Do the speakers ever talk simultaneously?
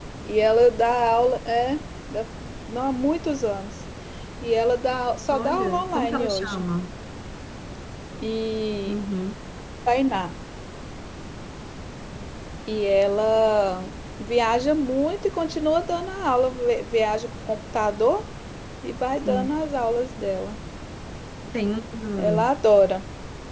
Yes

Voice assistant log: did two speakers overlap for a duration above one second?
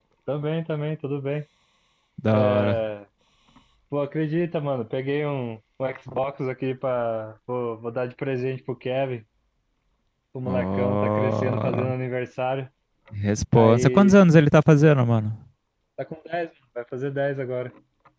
Yes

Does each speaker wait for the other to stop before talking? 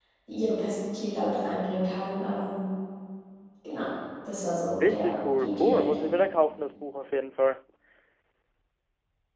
No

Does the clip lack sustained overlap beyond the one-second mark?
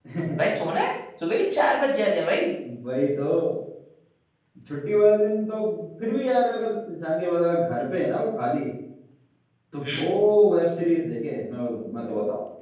Yes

